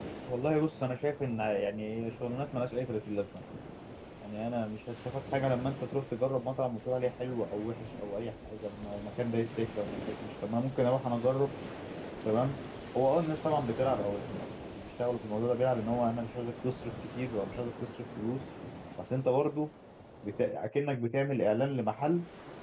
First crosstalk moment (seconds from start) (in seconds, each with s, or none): none